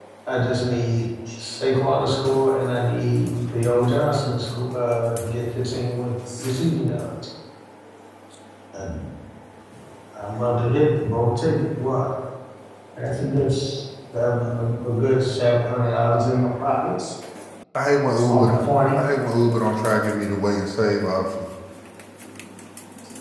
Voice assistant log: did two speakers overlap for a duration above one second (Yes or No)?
No